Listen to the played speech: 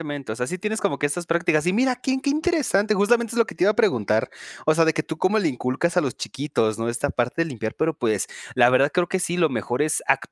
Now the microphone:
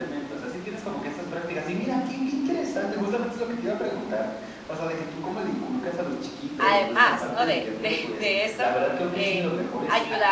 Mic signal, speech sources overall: both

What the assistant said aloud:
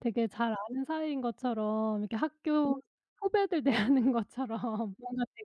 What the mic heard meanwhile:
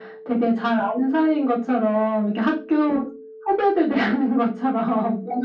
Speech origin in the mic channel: echo only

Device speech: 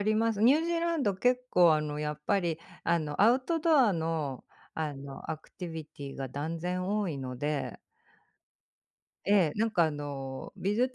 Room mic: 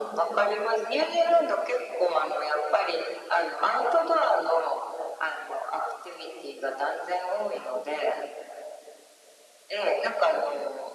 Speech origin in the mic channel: echo only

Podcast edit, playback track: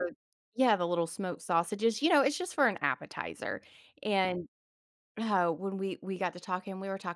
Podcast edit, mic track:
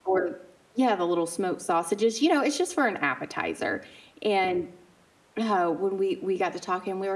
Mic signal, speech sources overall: echo only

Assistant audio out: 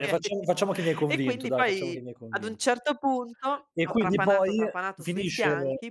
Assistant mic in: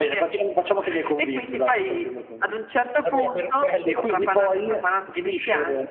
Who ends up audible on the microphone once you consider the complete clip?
both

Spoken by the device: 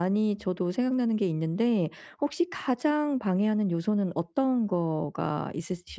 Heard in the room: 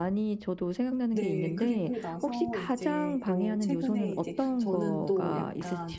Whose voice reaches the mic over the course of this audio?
both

